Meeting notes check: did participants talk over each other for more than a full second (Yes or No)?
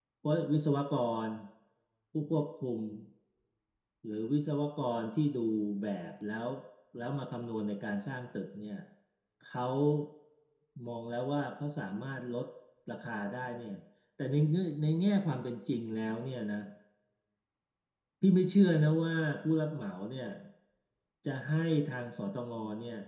No